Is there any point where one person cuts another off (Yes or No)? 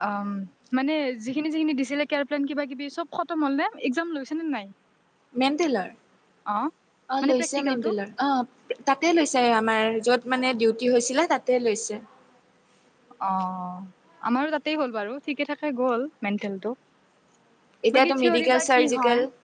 Yes